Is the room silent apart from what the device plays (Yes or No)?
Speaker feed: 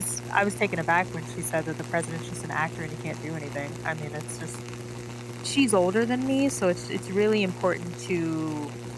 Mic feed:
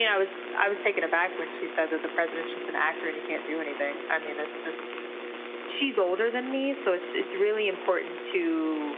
Yes